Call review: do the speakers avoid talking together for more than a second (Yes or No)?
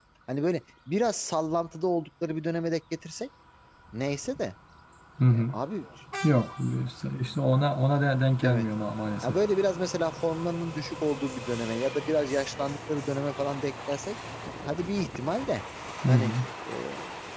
Yes